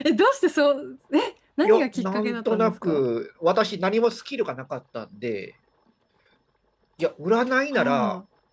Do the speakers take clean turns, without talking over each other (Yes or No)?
No